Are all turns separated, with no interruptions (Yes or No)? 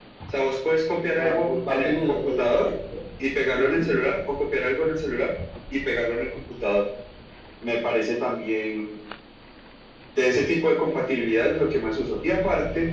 No